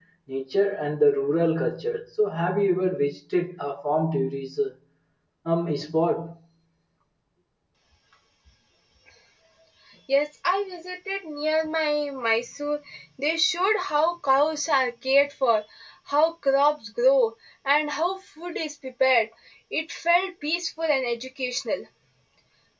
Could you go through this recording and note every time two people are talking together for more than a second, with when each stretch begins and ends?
none

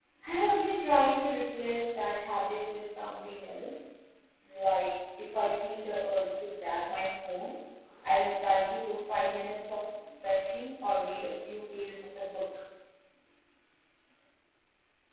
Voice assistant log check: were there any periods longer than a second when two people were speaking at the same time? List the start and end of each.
none

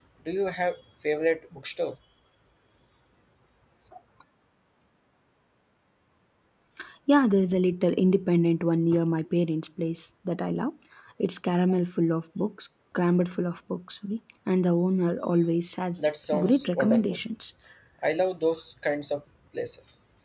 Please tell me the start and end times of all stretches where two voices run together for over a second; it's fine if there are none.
16.0-17.2

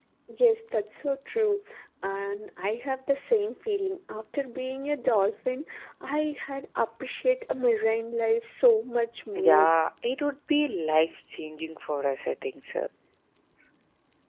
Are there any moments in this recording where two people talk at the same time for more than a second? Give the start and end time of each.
none

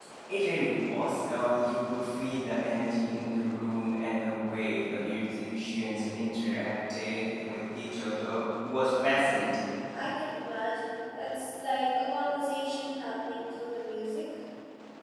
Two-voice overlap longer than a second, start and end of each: none

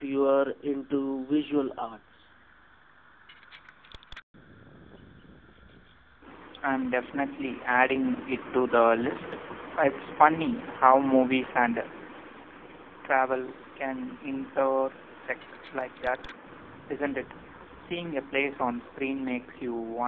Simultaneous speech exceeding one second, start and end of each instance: none

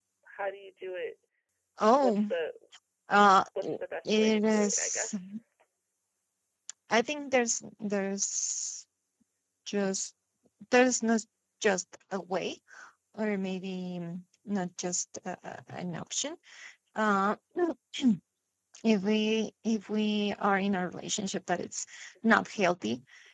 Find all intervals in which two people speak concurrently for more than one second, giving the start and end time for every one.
3.6-5.1

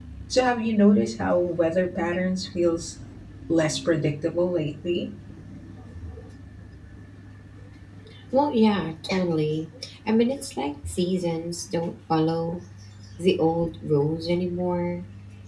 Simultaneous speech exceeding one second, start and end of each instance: none

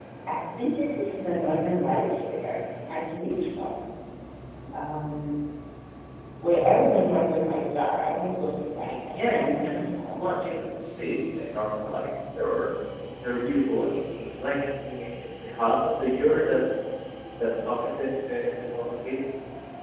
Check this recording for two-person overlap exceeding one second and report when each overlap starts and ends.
8.8-10.6

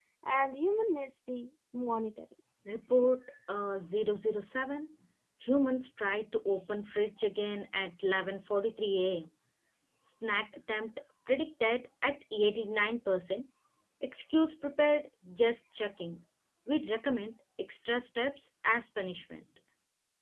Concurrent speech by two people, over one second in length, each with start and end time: none

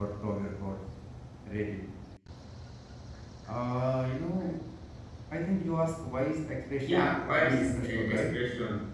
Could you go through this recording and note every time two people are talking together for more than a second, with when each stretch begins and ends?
6.8-8.2

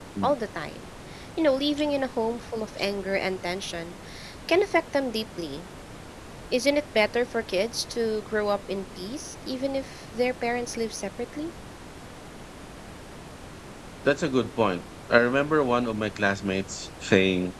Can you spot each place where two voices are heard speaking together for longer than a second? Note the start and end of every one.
none

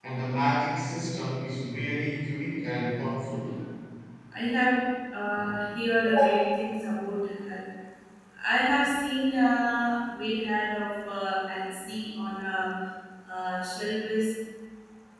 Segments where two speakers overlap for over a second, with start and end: none

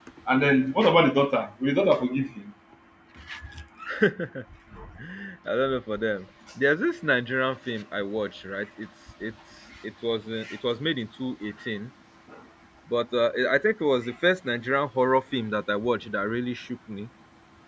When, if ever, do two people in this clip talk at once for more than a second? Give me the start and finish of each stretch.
none

